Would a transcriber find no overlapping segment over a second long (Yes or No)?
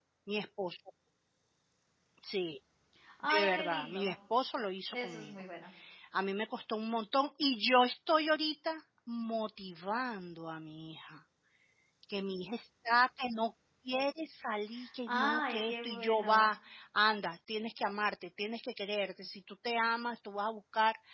No